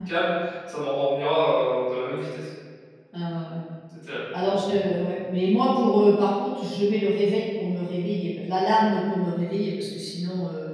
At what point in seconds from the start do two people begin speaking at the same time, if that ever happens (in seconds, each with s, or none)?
none